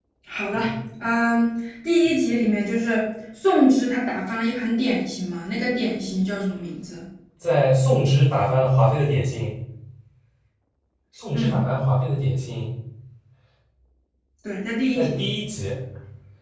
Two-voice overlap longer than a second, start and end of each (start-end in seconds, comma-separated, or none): none